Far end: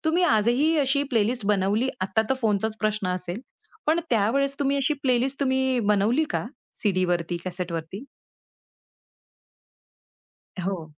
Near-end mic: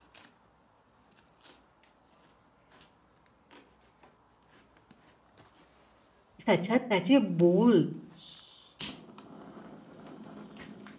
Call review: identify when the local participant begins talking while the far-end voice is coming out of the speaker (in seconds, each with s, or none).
6.5 s